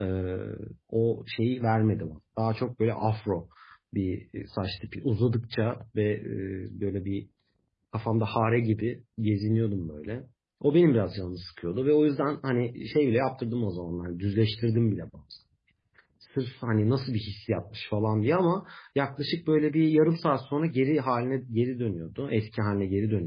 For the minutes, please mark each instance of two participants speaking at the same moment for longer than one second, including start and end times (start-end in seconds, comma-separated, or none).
none